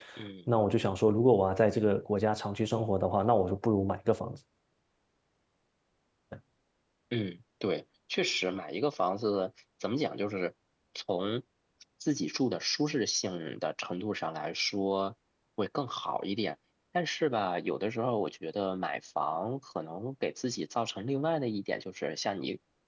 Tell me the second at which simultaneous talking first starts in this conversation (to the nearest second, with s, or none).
none